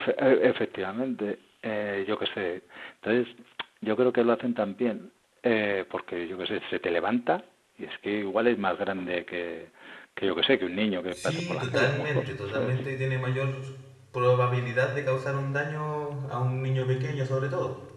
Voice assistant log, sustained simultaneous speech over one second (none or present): present